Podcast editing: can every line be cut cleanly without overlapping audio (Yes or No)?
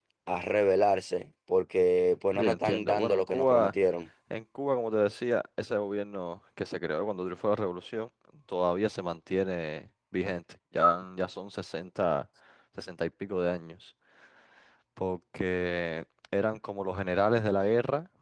No